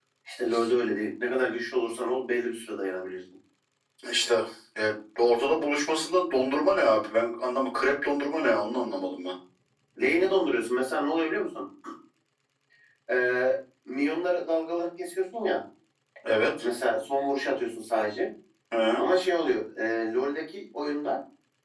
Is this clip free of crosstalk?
Yes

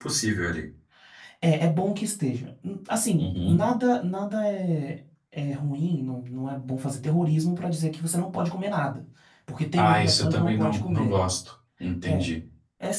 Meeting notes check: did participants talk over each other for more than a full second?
Yes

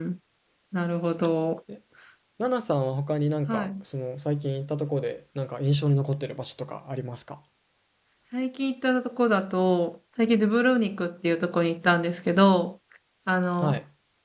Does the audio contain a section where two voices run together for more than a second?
No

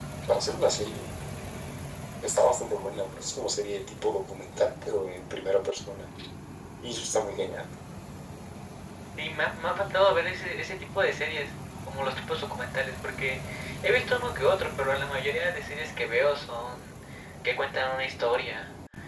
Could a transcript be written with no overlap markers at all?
Yes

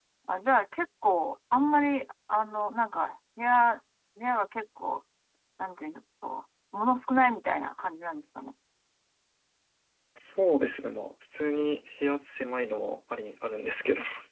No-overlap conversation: Yes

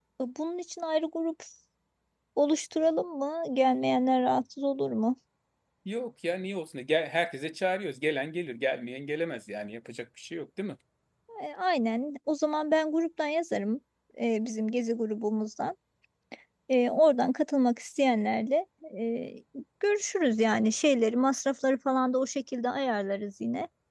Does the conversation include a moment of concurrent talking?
No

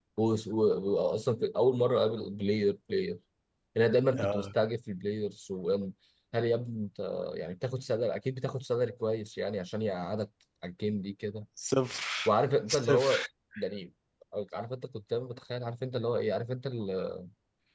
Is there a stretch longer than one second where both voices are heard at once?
No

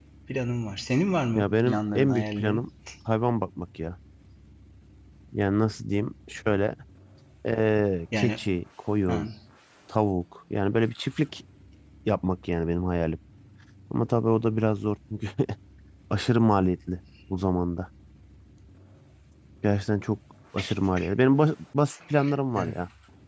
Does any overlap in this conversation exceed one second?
Yes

